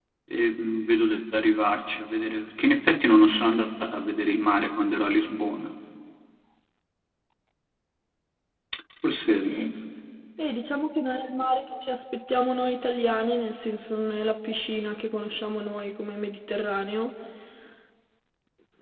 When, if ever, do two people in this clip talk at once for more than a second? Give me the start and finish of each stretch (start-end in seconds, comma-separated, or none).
none